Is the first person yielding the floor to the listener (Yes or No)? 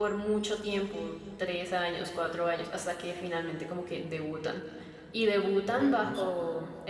No